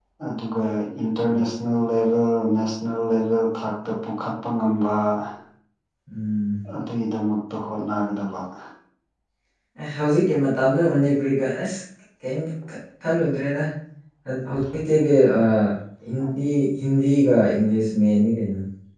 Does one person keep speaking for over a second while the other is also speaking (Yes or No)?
No